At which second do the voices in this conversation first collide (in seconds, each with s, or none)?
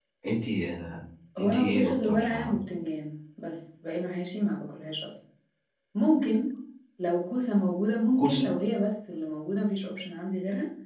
1.4 s